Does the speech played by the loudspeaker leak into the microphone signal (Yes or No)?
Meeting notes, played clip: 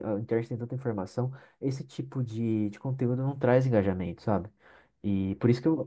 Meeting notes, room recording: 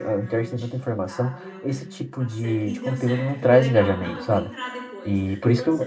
Yes